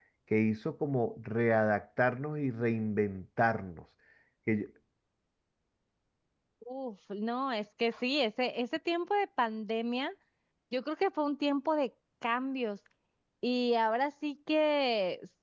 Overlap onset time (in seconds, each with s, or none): none